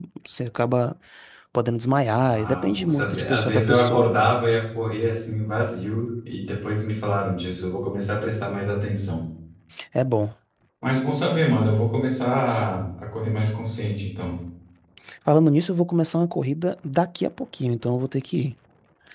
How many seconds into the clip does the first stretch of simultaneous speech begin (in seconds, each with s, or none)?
2.1 s